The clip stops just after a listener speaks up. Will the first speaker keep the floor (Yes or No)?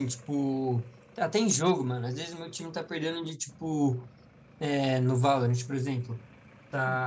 Yes